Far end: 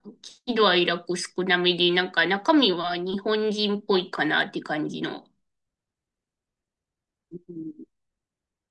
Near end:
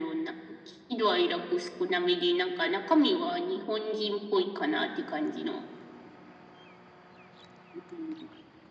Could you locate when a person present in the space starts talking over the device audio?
none

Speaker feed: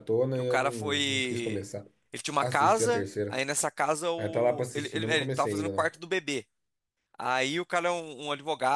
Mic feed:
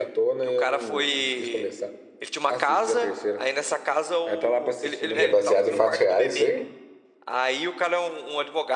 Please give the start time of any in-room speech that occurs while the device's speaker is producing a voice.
5.1 s

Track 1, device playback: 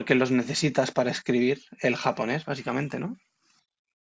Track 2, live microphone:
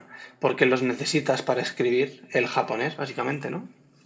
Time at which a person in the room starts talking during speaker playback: none

